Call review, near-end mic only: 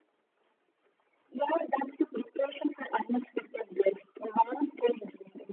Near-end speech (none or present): none